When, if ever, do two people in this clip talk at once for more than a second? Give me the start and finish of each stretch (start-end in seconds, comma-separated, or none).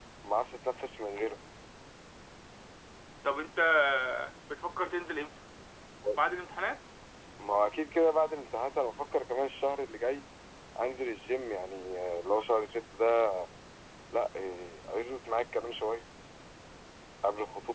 none